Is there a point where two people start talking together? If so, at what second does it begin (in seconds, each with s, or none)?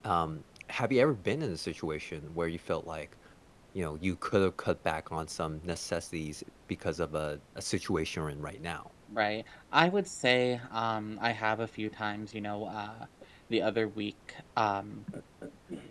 none